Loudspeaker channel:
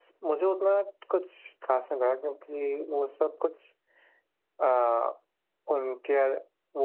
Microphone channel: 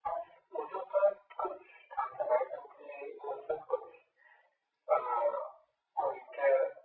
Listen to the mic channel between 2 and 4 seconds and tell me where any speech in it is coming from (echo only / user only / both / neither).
echo only